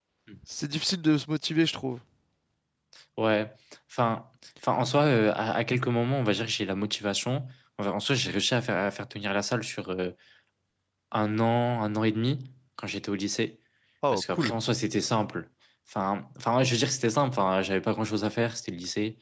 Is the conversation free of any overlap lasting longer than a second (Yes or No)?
Yes